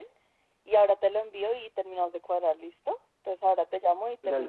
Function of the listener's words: taking over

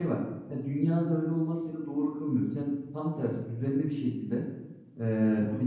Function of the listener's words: listening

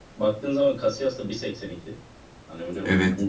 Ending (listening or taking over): listening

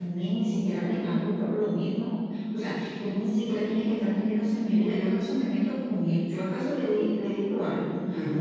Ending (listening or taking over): taking over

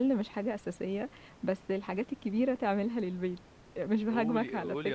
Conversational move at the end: taking over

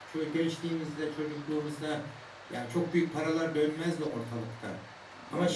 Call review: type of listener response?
listening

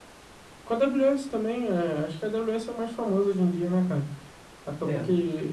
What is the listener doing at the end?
listening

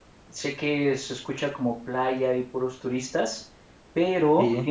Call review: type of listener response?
listening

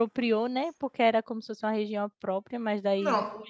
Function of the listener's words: listening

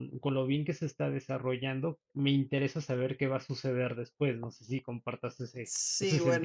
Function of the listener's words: taking over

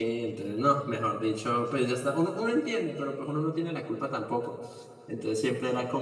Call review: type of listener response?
listening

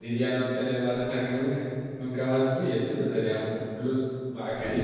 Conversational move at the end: taking over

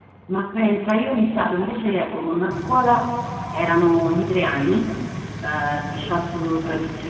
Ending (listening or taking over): listening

